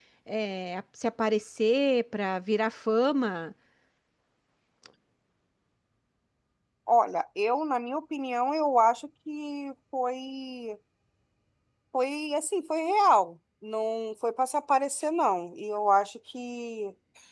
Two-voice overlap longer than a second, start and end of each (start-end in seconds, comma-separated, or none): none